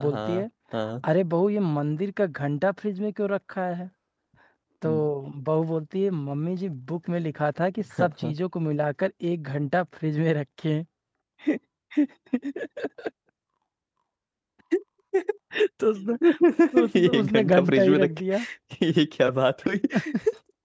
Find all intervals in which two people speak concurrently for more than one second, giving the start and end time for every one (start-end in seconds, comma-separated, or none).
17.0-18.4